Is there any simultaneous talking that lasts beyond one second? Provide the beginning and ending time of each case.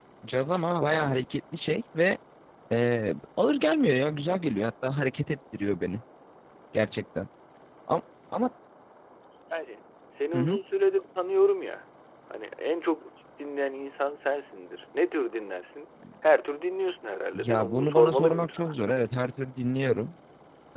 17.4-18.7

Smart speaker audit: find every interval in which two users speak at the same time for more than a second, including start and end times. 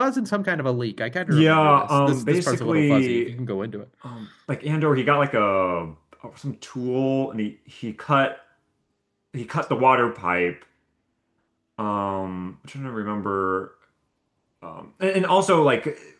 1.3-3.3

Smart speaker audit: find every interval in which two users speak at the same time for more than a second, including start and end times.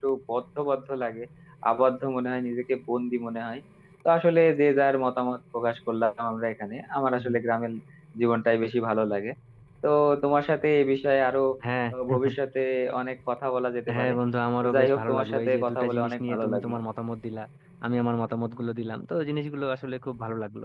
14.6-16.8

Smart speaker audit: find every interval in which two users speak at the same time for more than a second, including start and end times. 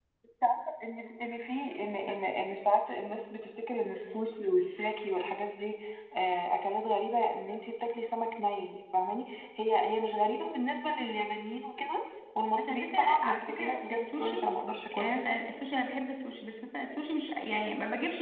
12.6-14.5

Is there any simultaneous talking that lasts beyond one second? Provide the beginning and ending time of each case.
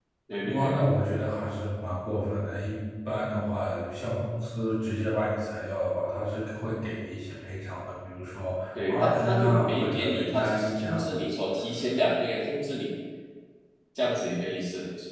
8.9-11.1

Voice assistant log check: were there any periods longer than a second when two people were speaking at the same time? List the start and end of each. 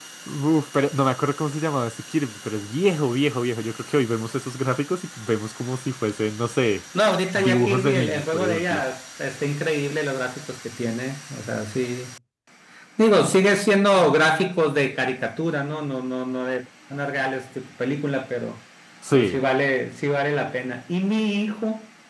7.3-8.8

